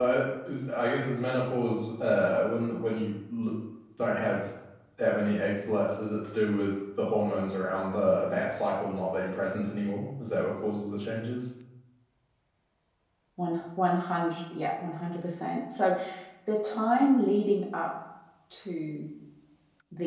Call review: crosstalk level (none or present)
none